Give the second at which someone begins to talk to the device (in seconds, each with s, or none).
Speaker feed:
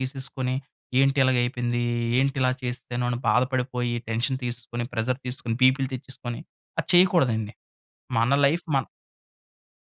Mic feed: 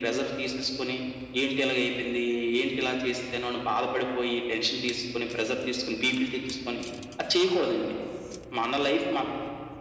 none